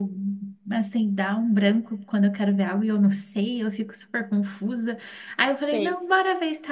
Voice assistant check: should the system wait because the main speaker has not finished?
Yes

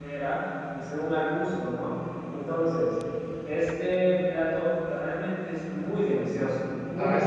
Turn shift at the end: Yes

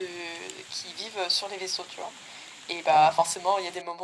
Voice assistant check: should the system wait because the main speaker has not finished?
Yes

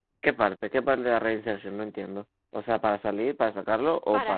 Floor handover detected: Yes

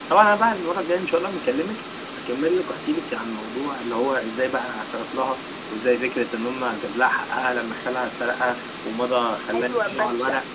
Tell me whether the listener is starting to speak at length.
Yes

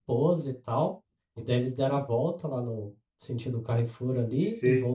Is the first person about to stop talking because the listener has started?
No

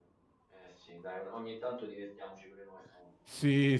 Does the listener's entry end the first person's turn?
Yes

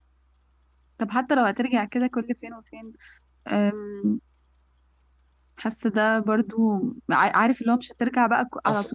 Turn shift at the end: No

